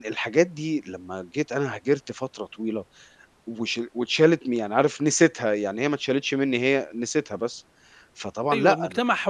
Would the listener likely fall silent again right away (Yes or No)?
No